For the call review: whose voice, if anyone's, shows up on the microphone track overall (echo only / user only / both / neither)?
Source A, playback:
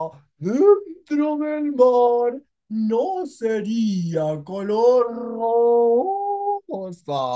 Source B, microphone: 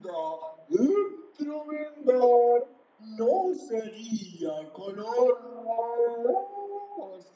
echo only